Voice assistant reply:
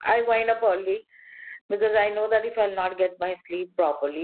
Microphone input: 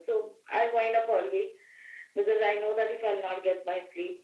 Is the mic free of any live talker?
Yes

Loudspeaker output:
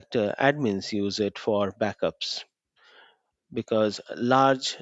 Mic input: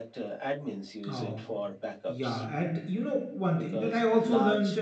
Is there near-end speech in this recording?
Yes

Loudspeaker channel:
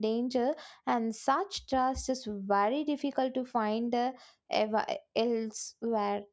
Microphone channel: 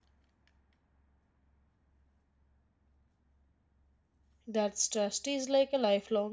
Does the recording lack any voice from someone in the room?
No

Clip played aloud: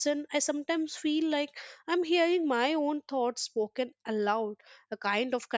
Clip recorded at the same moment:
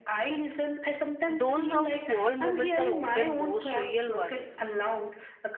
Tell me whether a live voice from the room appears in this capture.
Yes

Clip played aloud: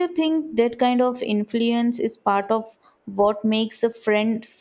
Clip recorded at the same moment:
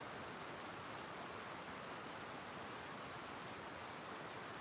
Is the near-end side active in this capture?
No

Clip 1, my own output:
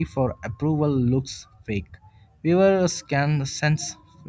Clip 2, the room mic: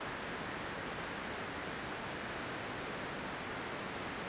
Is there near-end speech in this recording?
No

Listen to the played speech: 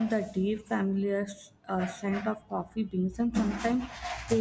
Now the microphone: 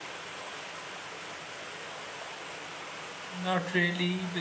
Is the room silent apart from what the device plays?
No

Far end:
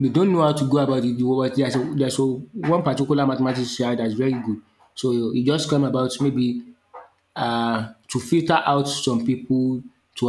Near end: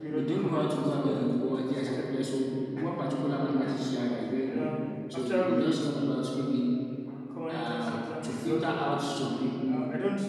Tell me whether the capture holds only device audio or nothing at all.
No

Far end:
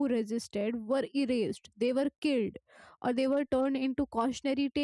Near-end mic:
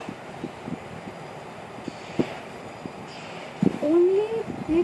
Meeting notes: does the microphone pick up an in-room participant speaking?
Yes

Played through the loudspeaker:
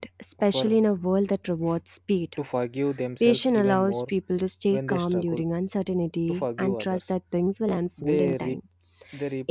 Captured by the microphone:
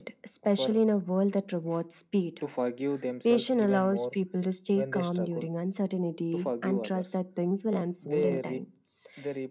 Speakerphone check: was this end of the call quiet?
Yes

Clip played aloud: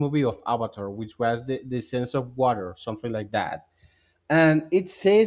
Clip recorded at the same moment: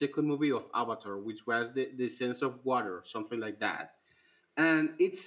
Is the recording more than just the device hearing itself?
No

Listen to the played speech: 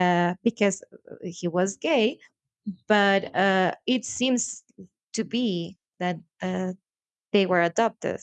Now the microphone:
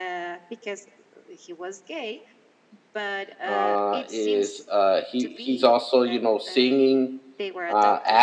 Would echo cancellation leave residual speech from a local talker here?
Yes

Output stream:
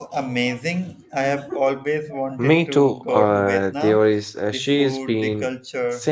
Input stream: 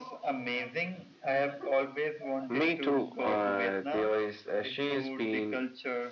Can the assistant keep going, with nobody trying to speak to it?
Yes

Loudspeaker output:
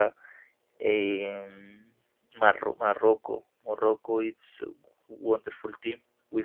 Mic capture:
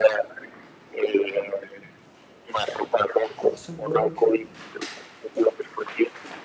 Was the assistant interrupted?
Yes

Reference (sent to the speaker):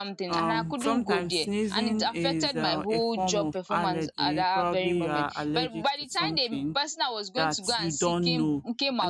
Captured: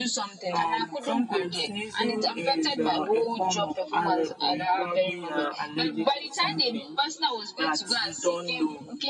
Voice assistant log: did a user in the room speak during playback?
No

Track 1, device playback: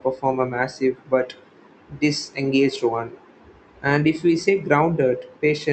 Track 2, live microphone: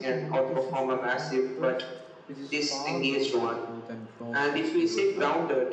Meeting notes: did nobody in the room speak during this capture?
No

